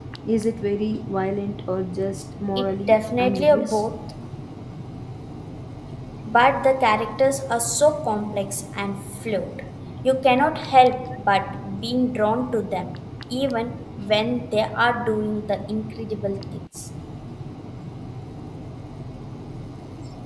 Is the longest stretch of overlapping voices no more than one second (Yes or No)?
No